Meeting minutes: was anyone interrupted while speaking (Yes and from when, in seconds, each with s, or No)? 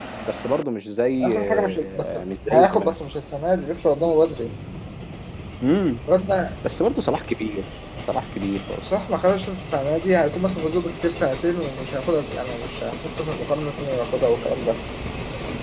Yes, from 1.2 s